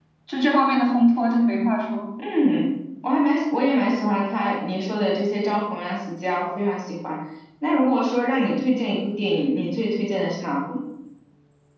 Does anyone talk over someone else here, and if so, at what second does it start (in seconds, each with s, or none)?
none